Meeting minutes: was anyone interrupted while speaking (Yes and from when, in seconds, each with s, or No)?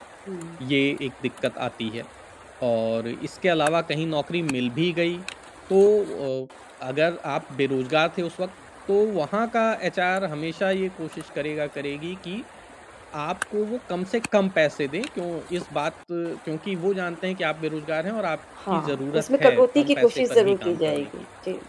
Yes, from 18.7 s